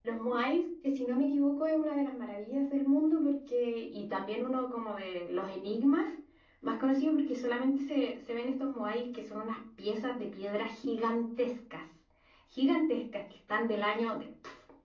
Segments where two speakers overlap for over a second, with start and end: none

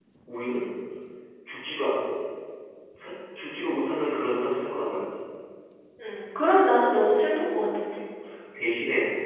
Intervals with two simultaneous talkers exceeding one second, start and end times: none

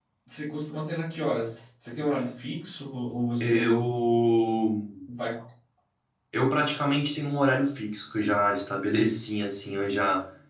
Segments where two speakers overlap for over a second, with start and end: none

